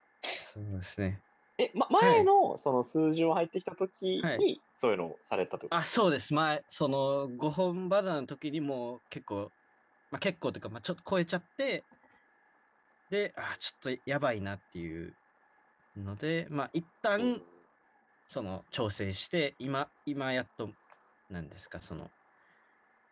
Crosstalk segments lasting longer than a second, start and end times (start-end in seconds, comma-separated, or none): none